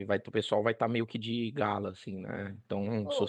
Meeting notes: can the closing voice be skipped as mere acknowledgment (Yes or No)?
No